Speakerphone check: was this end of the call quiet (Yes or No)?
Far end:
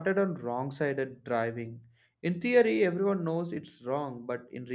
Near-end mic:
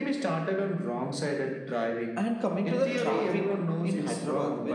No